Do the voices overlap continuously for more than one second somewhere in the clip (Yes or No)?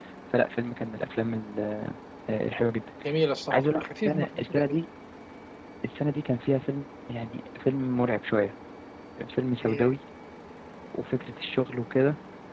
Yes